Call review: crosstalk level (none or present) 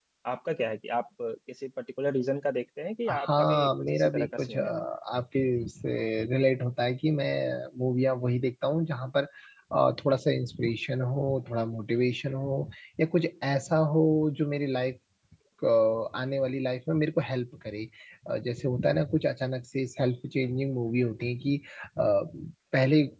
present